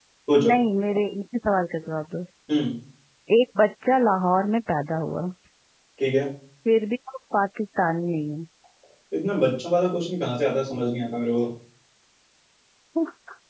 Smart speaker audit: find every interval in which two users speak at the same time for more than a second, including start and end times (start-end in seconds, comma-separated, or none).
none